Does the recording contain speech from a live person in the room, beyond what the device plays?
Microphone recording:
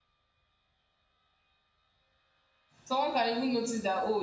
Yes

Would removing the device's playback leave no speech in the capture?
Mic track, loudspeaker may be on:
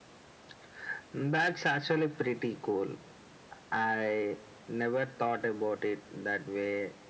Yes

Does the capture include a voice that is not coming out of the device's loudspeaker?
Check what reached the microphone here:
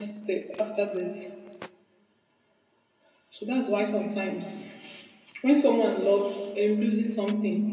Yes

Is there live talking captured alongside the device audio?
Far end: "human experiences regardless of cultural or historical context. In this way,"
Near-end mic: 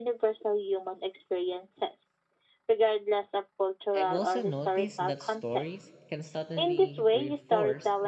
Yes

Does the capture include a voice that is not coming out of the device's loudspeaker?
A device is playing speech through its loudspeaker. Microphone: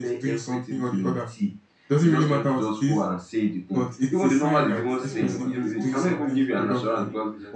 Yes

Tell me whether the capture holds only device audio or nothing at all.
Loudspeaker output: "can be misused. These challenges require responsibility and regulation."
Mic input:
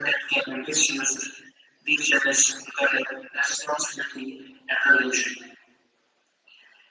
Yes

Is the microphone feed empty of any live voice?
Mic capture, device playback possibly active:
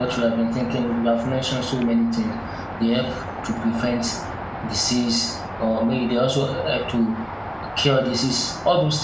No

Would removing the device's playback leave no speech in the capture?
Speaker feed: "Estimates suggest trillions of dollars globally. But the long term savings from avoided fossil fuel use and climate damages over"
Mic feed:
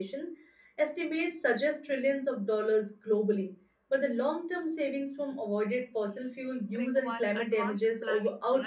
No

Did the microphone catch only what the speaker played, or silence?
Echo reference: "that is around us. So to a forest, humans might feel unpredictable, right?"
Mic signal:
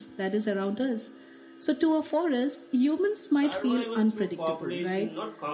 No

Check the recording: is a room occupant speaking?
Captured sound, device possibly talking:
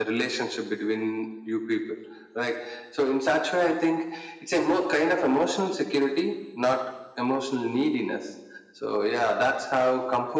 No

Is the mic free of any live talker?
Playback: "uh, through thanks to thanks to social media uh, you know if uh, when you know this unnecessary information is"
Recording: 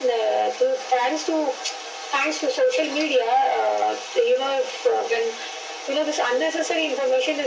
Yes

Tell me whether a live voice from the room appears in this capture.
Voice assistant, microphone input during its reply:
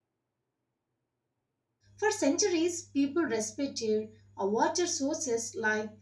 Yes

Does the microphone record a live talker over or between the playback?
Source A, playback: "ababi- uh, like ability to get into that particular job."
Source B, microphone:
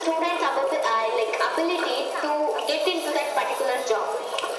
Yes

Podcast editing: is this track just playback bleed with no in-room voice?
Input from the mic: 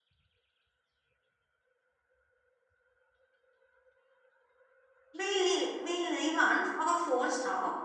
No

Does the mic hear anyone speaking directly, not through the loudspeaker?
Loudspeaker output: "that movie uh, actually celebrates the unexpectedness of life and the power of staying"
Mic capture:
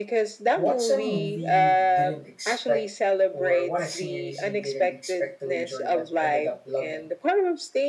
Yes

